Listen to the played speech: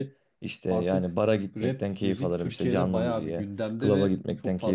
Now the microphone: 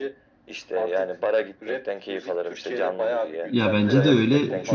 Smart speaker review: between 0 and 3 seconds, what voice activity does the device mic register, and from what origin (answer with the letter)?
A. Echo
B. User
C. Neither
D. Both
A